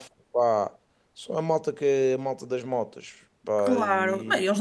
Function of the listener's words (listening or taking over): taking over